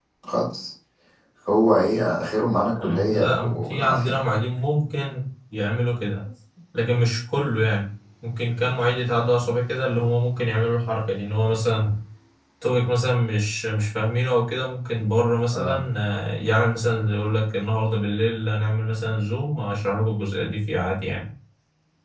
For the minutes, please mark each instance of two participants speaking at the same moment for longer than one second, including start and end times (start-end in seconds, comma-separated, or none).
2.8-4.2